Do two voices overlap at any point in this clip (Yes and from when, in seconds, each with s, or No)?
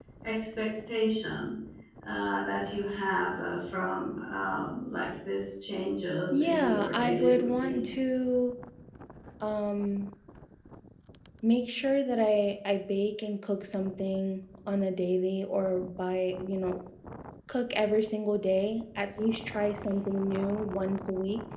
Yes, from 6.3 s